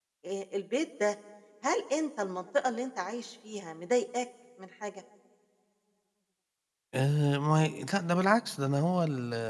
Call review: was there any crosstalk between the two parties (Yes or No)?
No